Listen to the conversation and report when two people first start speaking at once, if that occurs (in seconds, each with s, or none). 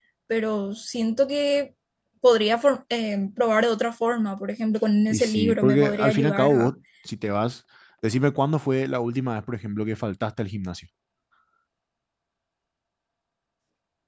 5.1 s